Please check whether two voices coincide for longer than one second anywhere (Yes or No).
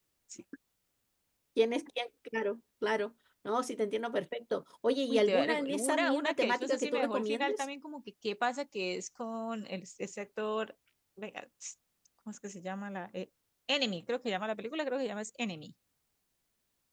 Yes